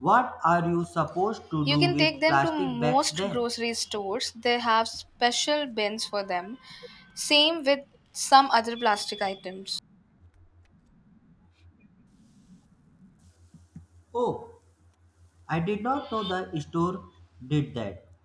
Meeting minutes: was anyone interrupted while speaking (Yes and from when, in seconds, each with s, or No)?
Yes, from 1.7 s